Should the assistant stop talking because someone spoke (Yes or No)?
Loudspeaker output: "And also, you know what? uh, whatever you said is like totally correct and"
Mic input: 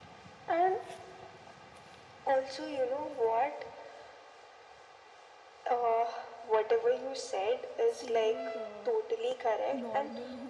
Yes